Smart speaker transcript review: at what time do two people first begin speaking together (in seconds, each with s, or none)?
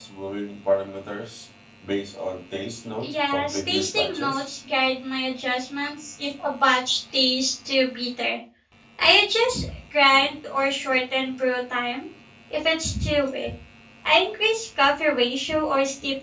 3.0 s